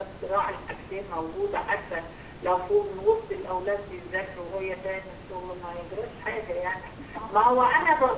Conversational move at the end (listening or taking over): listening